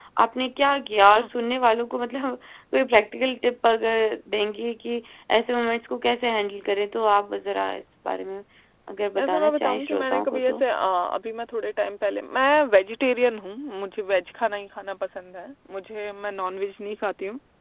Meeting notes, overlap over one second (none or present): present